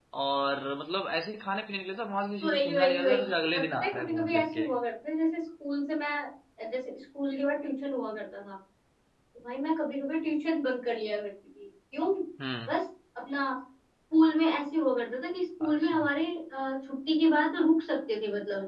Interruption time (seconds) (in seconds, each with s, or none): 2.4 s